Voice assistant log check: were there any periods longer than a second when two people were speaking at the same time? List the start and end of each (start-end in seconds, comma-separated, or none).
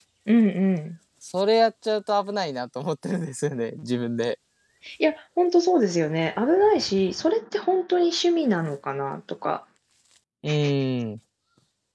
none